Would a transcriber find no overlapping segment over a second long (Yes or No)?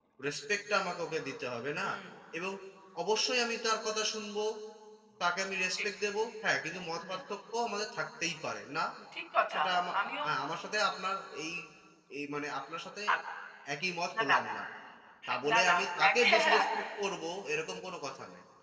No